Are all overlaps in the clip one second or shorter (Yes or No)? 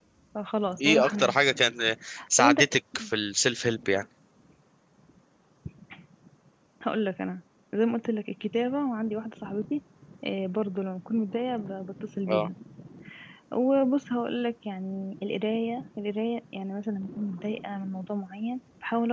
Yes